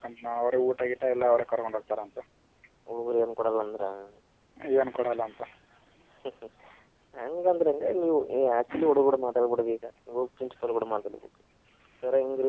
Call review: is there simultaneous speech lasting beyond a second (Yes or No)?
No